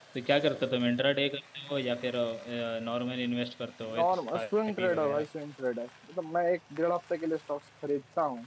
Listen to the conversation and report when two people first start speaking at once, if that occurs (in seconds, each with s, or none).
3.9 s